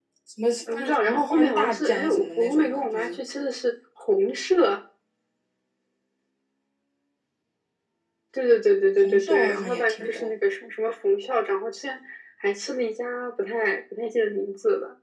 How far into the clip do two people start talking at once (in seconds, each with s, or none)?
0.7 s